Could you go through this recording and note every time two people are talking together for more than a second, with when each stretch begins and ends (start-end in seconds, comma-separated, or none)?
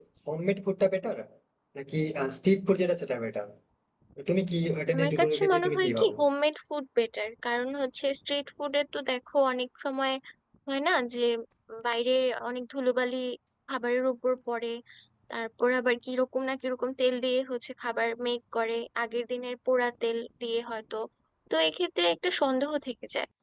4.9-6.2